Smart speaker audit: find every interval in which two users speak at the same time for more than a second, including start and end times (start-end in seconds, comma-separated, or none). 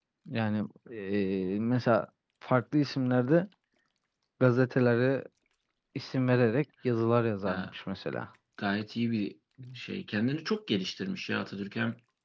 none